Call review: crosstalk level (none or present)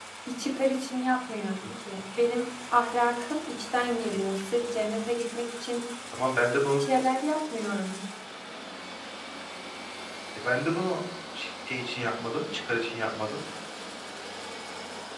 none